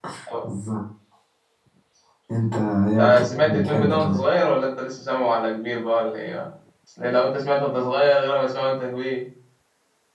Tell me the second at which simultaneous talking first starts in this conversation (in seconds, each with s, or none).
3.0 s